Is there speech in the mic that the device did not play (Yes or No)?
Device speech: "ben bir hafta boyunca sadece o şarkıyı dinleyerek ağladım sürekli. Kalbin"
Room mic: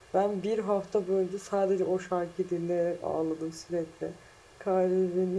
No